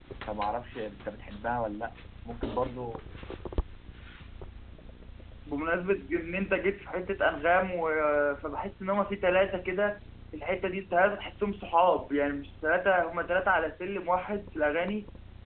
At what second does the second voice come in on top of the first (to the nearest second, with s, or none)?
none